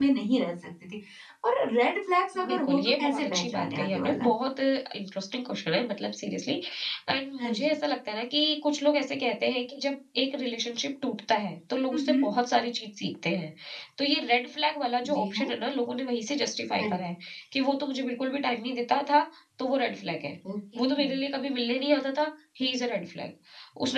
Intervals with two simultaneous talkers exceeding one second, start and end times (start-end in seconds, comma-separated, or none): 2.5-4.3